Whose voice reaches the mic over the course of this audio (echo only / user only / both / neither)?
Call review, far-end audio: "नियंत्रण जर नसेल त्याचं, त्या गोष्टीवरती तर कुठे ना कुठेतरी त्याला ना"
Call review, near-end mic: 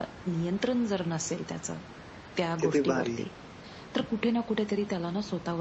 both